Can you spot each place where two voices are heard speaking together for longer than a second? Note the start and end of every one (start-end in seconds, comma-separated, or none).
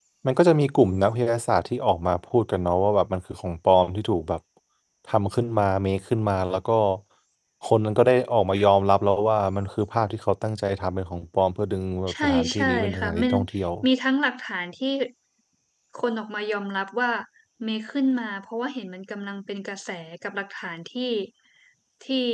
12.1-13.3